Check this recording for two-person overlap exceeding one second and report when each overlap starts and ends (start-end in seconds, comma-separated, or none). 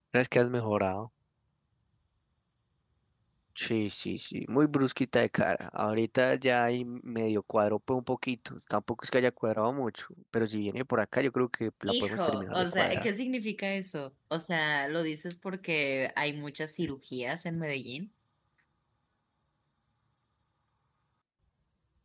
11.9-13.1